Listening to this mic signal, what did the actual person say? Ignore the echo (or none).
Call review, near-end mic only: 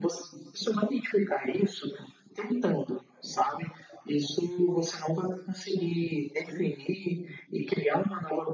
none